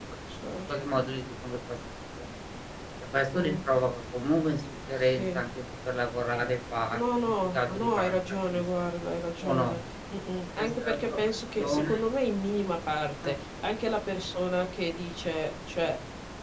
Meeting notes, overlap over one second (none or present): present